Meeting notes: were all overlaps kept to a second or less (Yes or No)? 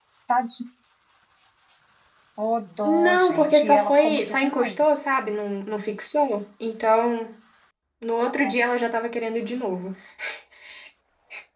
No